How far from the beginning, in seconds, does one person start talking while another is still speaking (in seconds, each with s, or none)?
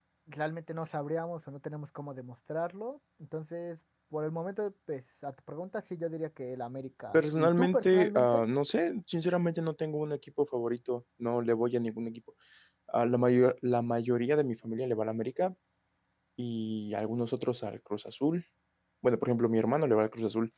7.1 s